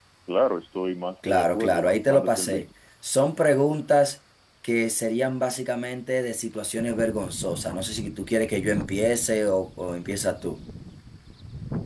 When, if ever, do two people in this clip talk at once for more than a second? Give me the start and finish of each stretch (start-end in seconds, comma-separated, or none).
1.3-2.7